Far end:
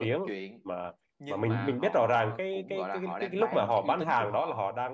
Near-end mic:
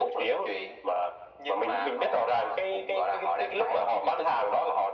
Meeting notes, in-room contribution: none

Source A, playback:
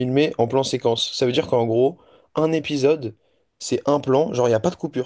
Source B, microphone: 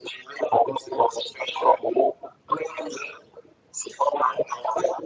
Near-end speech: none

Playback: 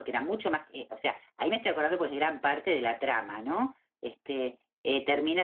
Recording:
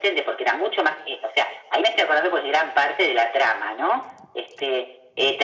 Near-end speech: none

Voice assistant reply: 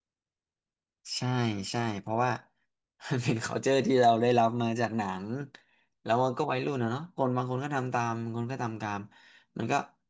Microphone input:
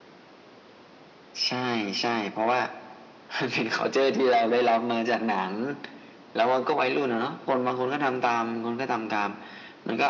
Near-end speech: none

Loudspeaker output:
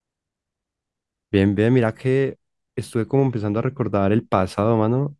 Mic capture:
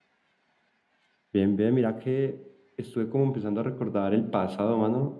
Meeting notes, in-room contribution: none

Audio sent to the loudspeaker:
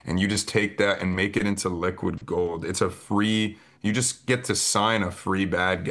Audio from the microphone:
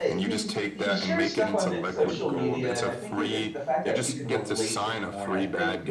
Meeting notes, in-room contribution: present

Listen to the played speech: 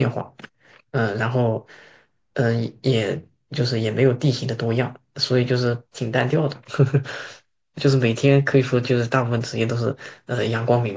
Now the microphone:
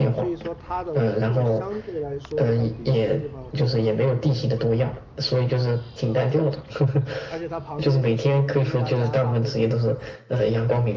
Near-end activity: present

